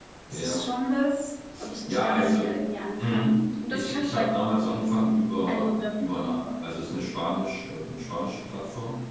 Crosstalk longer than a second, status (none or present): present